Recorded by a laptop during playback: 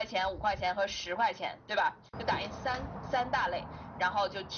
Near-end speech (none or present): none